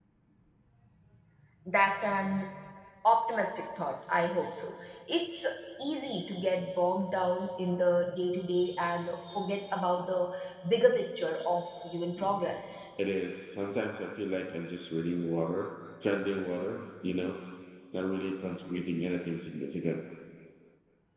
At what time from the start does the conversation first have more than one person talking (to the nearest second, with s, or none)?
none